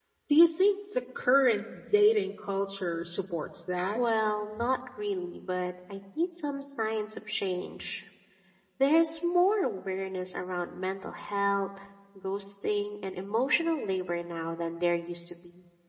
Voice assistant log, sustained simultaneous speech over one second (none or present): none